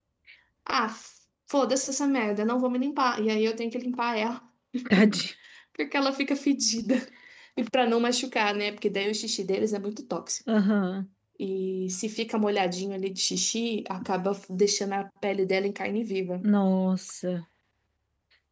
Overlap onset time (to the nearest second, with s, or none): none